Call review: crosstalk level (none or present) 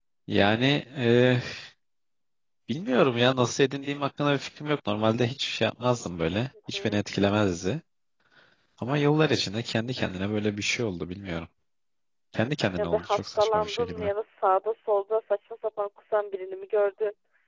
present